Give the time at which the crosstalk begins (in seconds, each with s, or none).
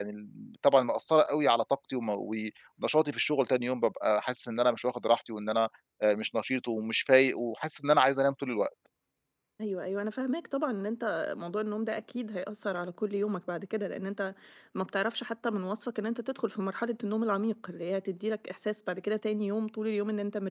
none